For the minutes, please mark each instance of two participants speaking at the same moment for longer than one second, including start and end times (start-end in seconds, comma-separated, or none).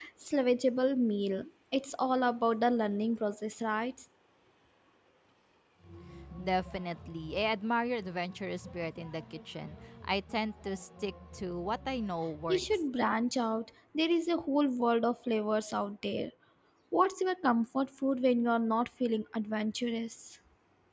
none